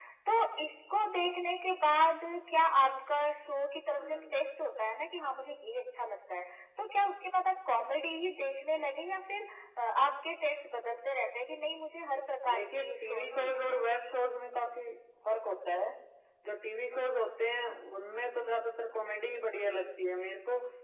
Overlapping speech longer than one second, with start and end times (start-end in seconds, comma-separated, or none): 12.5-13.8